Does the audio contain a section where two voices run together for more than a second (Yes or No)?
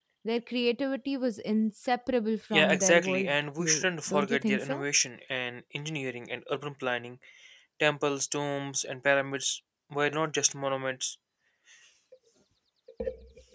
Yes